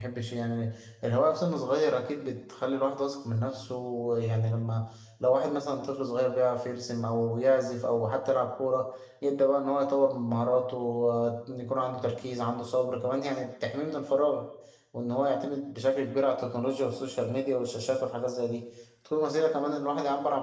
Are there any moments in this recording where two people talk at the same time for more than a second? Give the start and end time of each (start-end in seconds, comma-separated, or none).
none